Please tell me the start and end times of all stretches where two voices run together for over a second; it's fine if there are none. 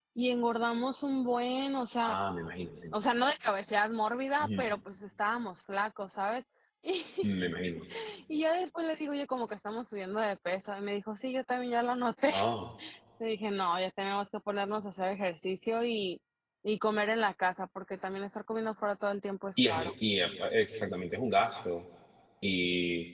none

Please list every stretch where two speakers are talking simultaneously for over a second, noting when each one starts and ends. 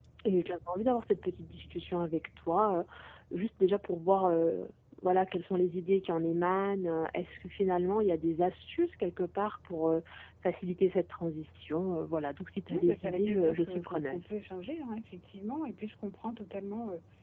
12.7-14.2

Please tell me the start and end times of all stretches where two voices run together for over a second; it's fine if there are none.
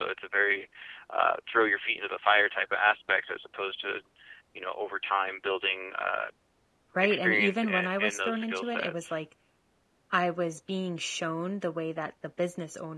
7.0-9.2

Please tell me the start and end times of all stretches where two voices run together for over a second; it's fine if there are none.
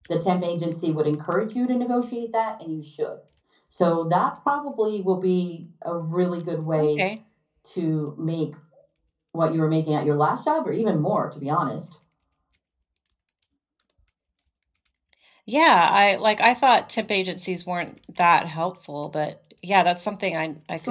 none

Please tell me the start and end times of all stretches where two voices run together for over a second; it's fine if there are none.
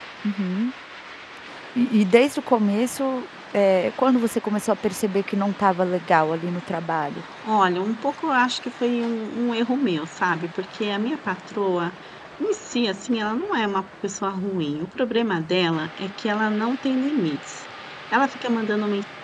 none

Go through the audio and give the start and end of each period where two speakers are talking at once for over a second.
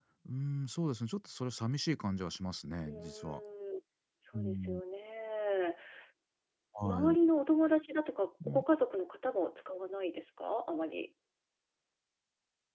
none

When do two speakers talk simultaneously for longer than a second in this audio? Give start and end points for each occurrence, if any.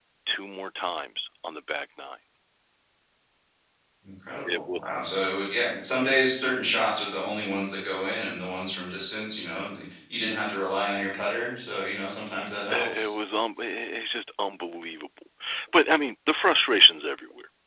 none

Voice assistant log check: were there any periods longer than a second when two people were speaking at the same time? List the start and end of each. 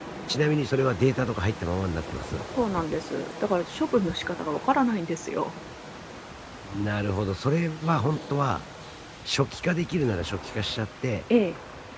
none

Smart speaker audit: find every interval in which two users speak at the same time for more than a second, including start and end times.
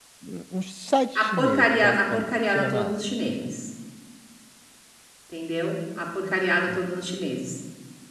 1.2-3.4

